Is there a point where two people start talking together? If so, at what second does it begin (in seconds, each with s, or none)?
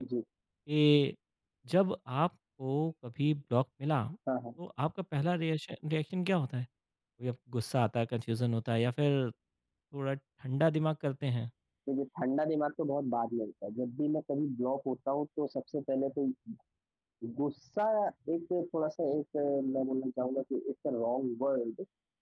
none